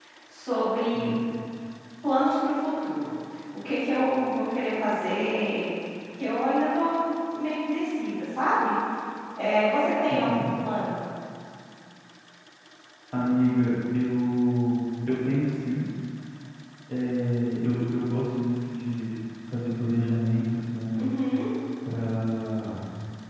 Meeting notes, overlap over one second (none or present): none